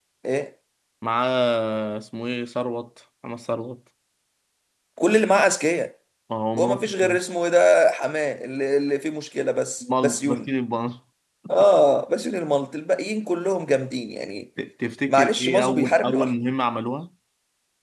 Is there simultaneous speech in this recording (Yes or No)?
Yes